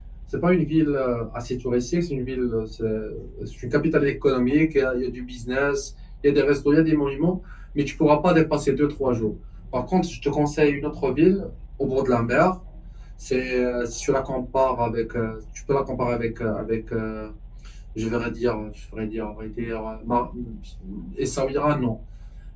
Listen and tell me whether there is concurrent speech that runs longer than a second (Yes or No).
No